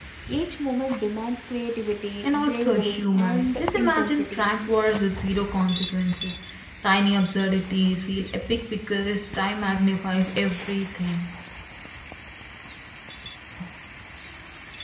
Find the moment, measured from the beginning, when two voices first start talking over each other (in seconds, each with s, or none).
2.2 s